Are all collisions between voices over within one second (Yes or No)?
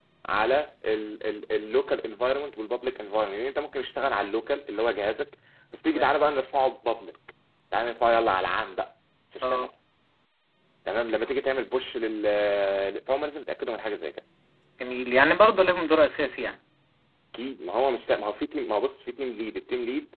Yes